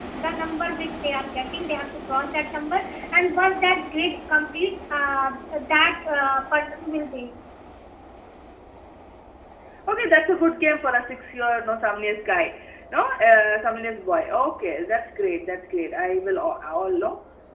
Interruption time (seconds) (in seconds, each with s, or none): none